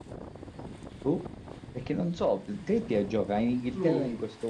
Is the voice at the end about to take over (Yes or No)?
No